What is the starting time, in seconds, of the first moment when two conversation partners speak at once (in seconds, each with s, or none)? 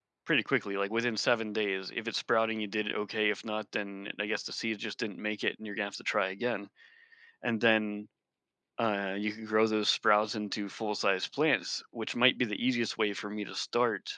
none